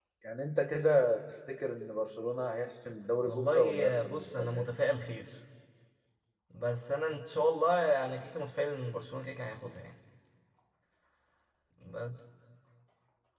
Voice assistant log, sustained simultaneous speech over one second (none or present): present